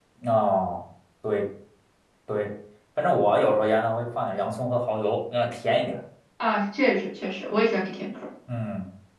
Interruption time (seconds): none

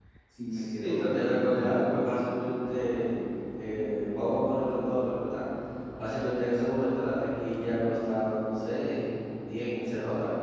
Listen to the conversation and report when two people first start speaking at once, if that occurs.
0.5 s

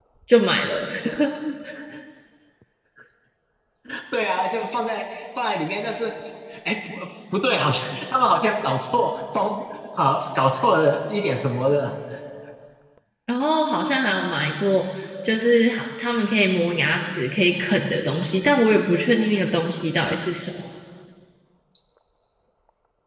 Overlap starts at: none

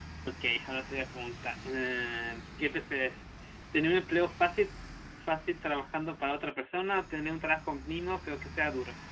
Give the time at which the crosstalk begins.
none

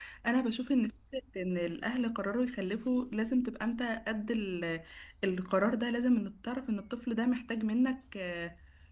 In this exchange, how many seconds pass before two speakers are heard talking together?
none

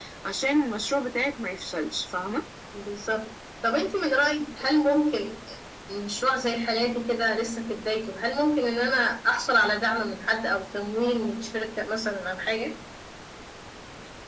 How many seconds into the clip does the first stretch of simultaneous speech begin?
none

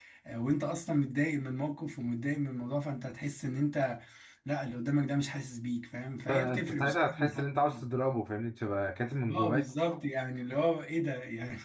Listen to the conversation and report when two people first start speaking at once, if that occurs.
6.3 s

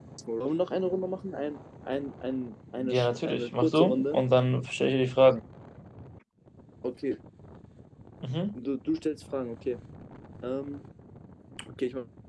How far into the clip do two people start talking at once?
2.8 s

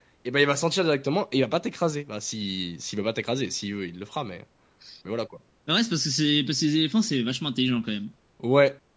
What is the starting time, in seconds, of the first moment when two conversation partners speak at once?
none

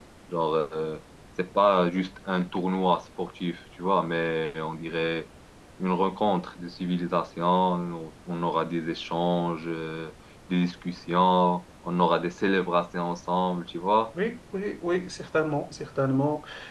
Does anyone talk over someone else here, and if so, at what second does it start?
none

